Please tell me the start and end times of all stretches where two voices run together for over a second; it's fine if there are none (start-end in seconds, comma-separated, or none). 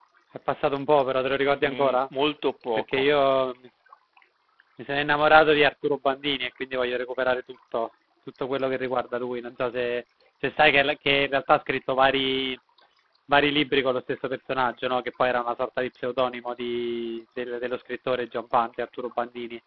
none